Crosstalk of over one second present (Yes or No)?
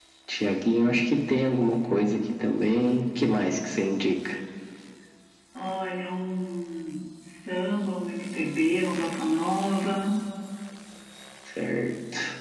No